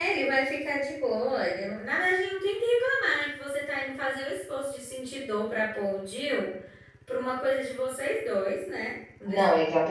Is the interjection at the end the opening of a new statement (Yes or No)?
Yes